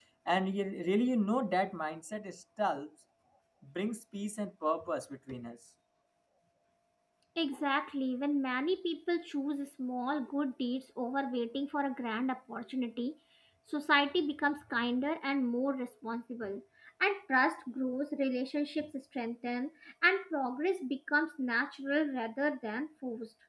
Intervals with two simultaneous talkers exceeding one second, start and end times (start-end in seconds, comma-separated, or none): none